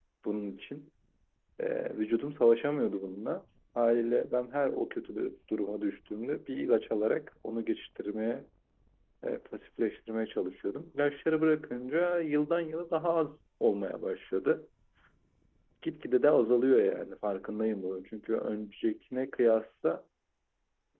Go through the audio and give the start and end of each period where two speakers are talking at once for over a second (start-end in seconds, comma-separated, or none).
none